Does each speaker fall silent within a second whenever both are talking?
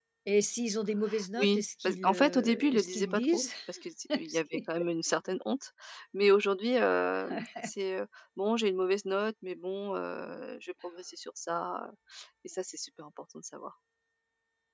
No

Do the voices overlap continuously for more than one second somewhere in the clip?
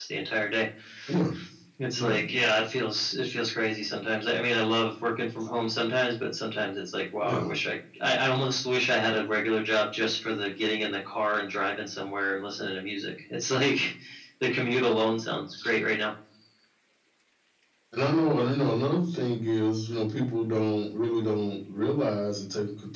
No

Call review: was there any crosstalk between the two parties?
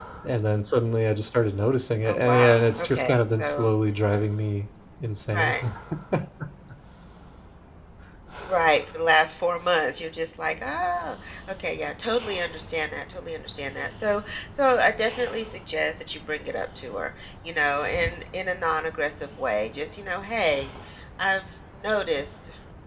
Yes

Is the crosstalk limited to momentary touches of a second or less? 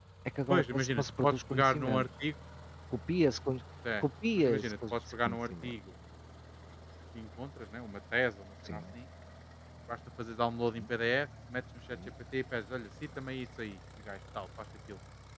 No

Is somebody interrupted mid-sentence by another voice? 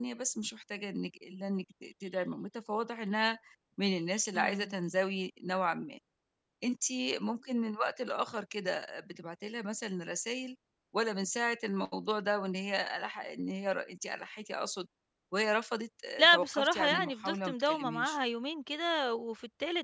Yes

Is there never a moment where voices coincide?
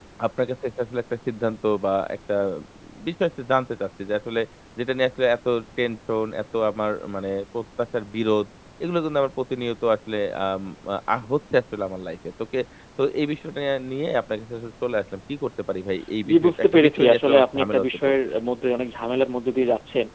No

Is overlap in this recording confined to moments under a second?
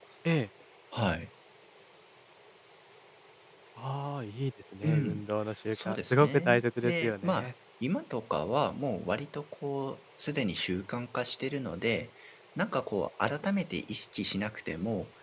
No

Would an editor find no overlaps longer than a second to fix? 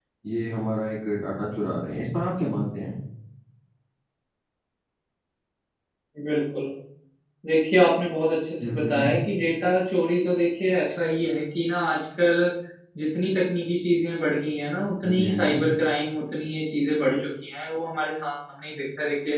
Yes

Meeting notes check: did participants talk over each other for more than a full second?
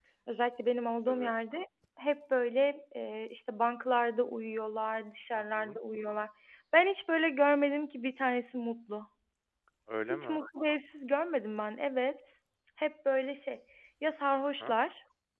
No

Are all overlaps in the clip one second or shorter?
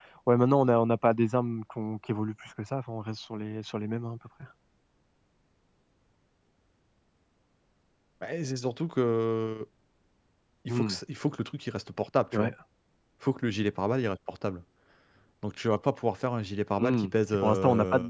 No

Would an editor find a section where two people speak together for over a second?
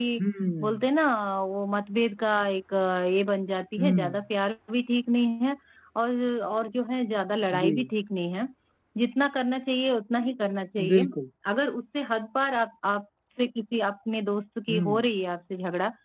No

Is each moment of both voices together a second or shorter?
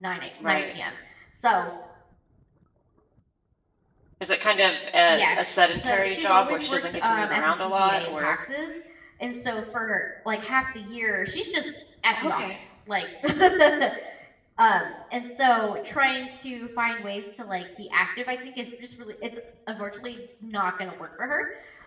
No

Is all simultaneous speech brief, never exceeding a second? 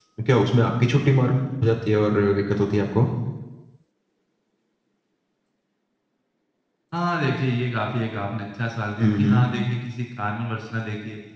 Yes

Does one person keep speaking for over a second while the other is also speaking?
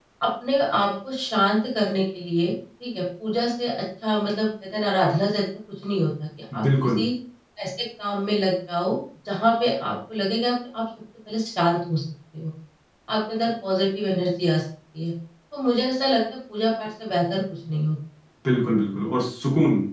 No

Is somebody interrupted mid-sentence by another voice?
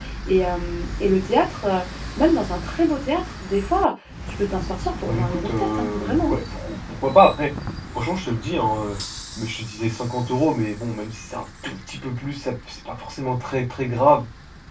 Yes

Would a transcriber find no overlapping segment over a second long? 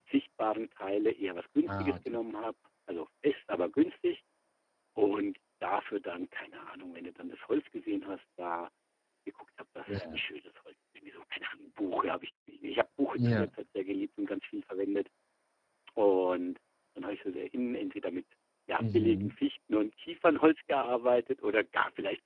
Yes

